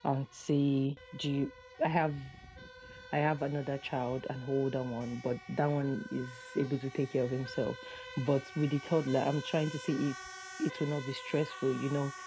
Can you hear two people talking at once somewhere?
No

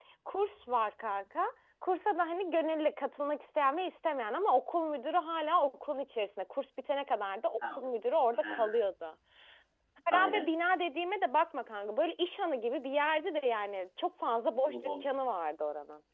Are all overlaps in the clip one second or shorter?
Yes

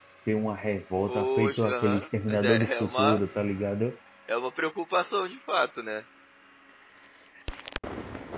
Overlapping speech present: Yes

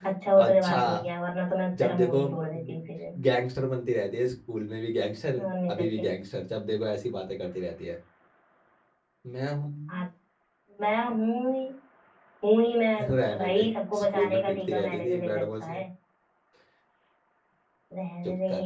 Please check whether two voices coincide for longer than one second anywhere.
Yes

